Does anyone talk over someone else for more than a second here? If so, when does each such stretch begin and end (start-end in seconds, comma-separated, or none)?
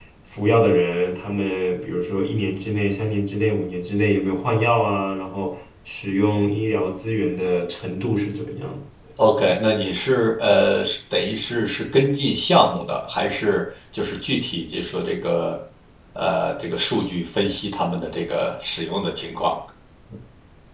none